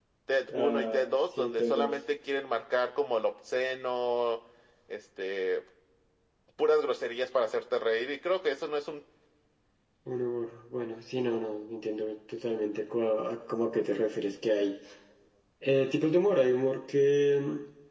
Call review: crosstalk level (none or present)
present